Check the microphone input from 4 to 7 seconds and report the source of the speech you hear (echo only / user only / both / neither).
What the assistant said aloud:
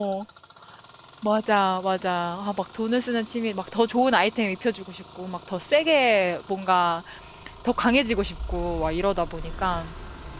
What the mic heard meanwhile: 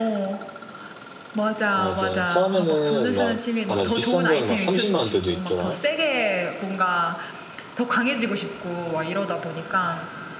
both